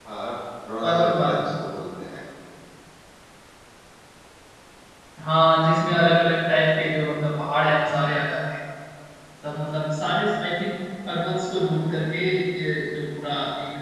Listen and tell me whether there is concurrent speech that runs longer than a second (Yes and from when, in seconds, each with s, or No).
No